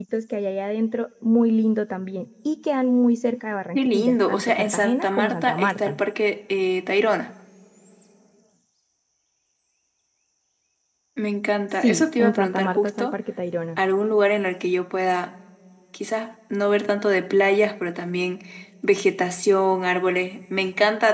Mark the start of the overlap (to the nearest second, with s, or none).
4 s